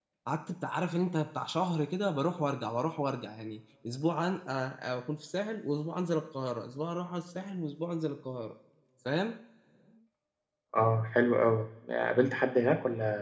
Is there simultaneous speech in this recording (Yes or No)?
No